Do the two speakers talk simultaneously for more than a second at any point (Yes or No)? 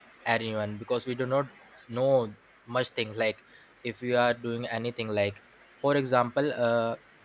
No